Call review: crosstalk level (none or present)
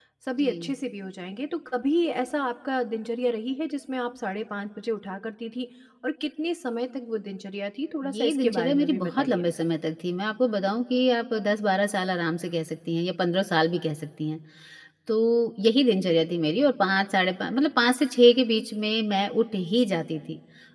present